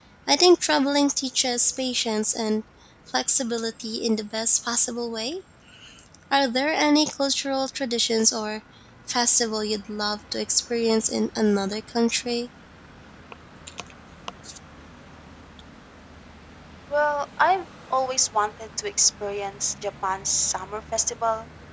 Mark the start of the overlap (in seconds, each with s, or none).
none